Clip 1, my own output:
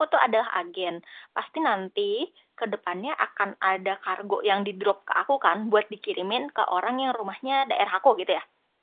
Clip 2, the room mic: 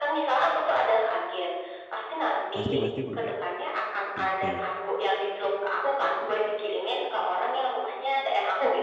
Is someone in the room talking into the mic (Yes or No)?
Yes